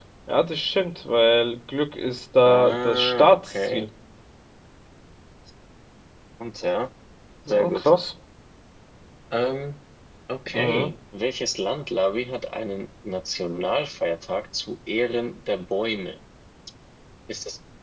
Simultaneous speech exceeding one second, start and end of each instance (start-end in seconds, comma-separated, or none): 2.5-3.8